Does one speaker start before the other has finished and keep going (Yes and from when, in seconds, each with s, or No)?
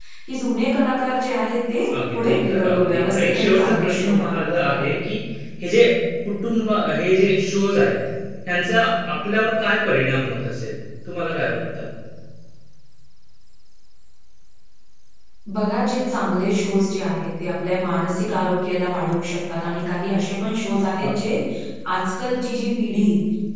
Yes, from 1.9 s